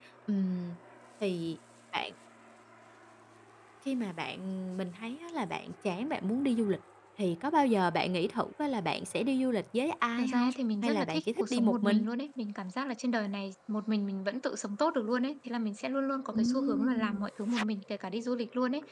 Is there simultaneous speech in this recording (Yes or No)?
Yes